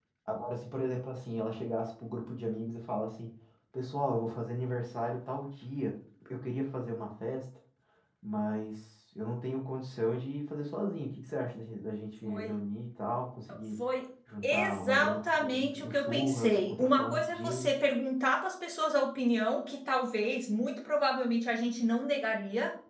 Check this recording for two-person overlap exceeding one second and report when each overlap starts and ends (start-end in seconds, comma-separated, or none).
14.4-17.7